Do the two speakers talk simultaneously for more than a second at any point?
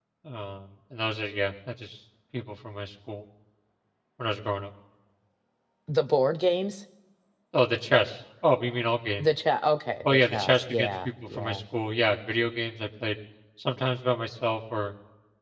Yes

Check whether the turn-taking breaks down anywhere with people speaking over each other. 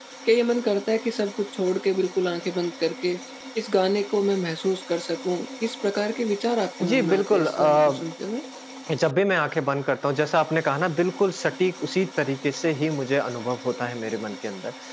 Yes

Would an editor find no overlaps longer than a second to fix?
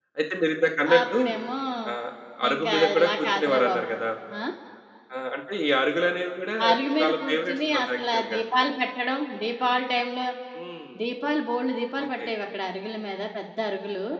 No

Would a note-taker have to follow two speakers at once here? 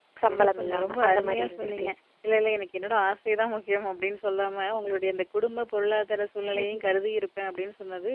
Yes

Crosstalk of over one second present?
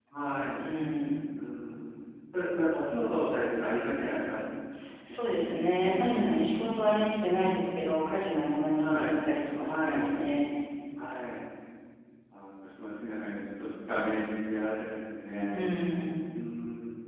No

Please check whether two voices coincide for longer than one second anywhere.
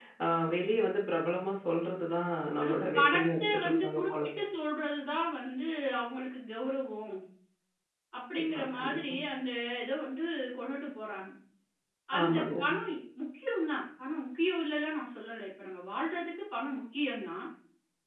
Yes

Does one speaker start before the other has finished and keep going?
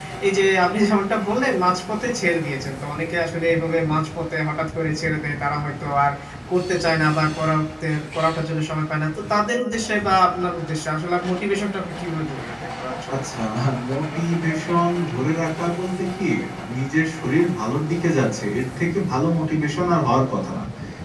No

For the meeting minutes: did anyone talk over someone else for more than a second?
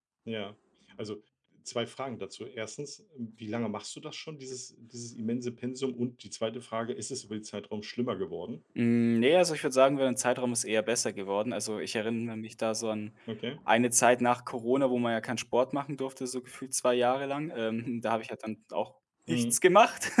No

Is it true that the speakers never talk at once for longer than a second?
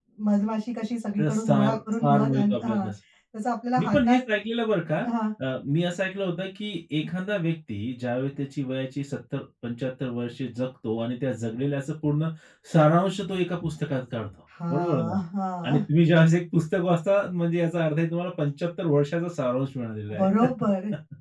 No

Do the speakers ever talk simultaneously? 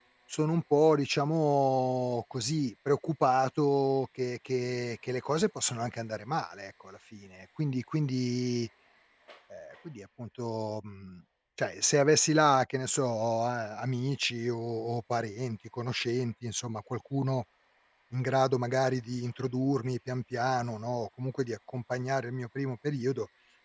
No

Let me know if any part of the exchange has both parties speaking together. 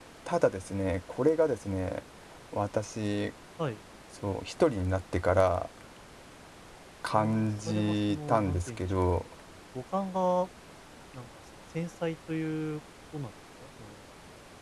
Yes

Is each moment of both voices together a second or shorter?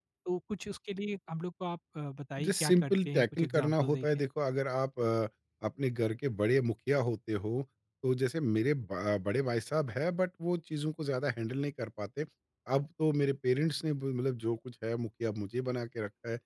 No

